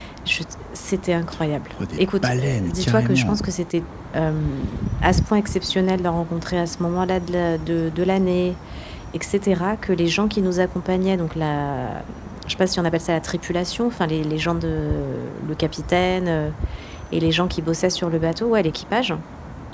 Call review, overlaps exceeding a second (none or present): present